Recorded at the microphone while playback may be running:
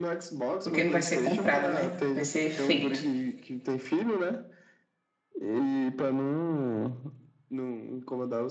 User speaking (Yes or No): Yes